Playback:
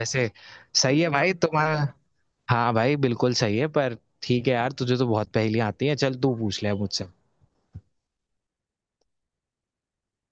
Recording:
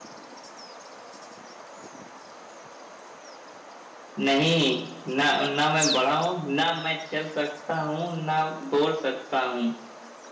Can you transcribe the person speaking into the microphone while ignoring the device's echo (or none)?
नहीं ना ना मैं बड़ा हूँ ना मैं चल सकता हूँ ना बोल सकता हूँ